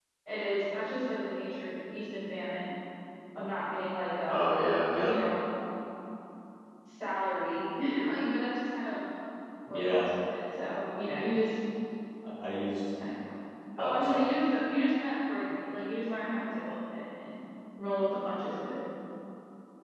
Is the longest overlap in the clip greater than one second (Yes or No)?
No